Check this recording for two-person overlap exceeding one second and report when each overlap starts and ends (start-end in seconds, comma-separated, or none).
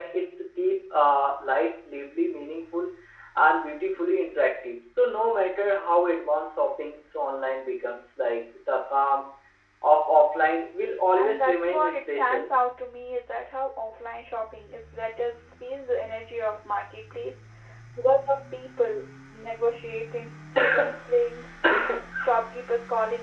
11.2-12.5